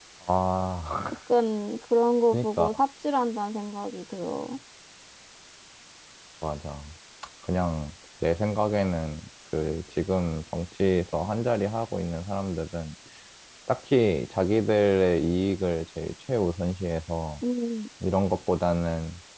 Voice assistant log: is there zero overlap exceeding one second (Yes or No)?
Yes